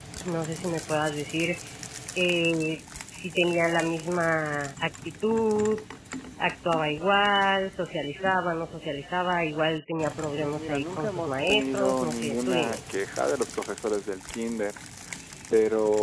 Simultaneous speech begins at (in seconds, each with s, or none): 10.4 s